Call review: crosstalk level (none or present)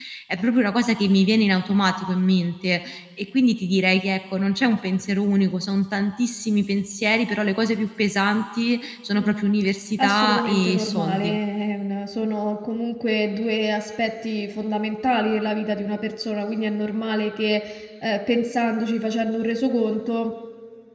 present